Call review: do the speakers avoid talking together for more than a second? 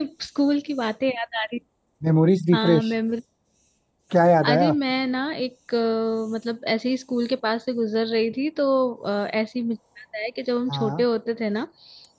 Yes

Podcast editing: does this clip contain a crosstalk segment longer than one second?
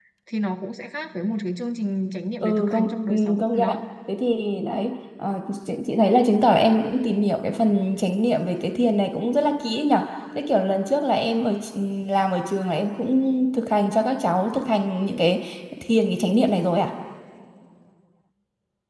Yes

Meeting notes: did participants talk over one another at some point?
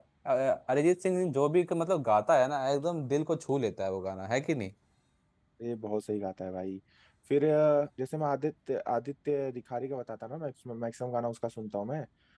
No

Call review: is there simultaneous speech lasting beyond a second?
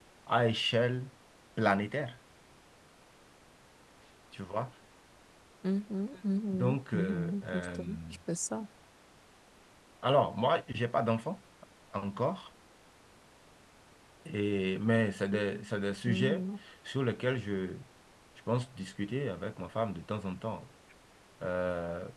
Yes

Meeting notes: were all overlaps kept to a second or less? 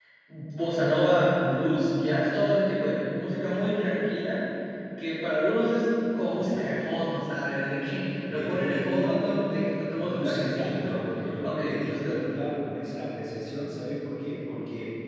No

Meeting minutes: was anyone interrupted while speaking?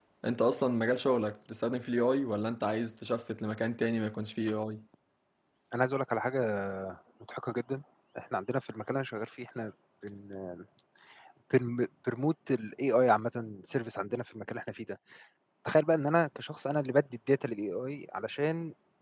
No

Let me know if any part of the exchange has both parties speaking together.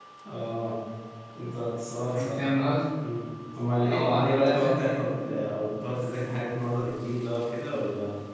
Yes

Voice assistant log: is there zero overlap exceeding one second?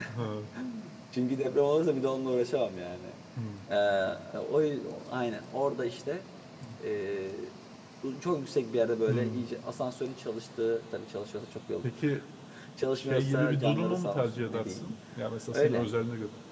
No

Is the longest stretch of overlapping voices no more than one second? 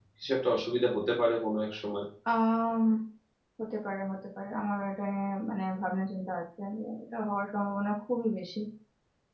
Yes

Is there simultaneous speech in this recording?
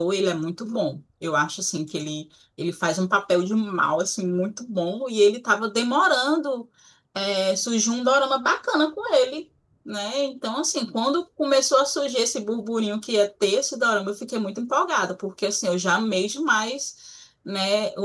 No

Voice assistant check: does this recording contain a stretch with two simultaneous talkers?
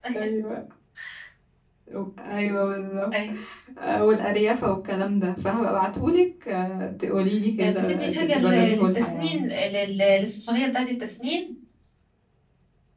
Yes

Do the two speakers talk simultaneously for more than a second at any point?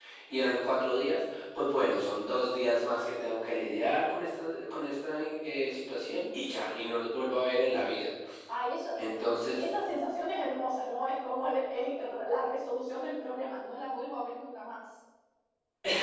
No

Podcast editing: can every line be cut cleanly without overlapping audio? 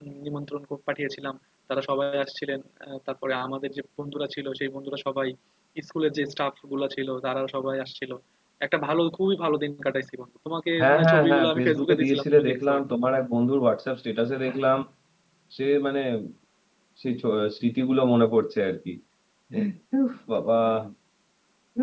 No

